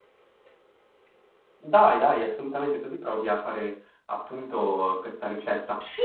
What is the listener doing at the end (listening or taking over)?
taking over